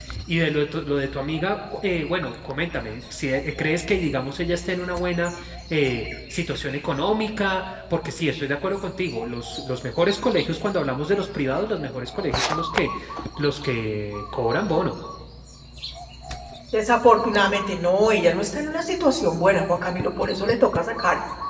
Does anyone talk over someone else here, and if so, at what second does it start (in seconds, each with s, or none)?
none